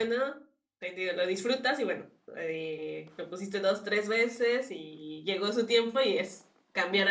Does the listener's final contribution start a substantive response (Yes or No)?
Yes